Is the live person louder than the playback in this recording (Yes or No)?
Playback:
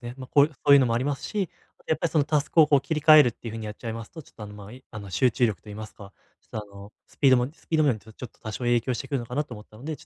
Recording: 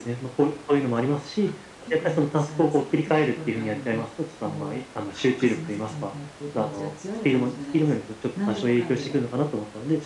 No